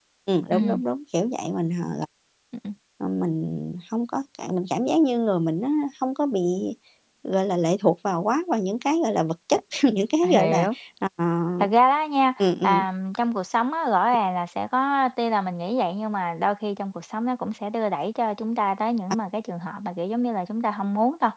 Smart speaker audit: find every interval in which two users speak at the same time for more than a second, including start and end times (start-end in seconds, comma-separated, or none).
none